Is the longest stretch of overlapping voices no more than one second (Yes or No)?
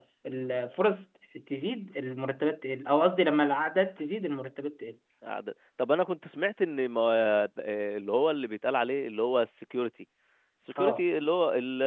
Yes